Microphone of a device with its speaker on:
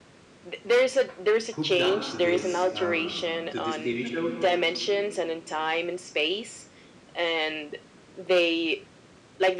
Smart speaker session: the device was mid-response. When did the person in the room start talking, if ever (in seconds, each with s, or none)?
1.5 s